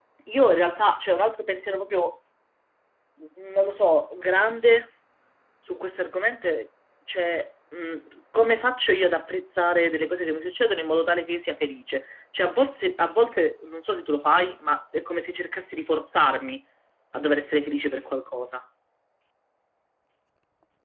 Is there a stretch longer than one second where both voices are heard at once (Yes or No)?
No